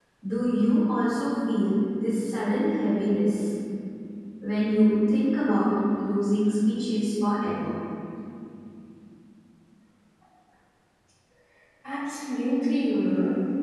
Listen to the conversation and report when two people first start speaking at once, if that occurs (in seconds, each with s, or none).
none